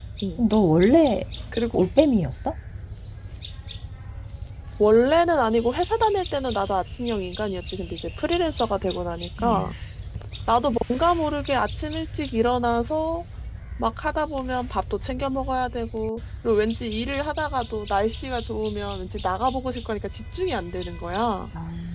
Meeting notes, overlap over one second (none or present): none